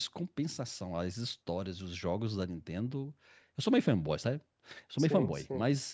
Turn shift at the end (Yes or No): No